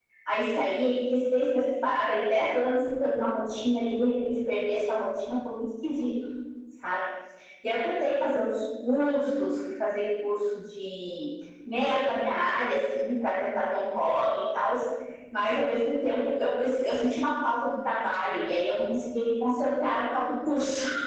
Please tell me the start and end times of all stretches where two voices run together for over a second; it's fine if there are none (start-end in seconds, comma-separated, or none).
none